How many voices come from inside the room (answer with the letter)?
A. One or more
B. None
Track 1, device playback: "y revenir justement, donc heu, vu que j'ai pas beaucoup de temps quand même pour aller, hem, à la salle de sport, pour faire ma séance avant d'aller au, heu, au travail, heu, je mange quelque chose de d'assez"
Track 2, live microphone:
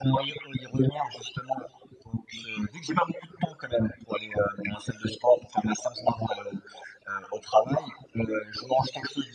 B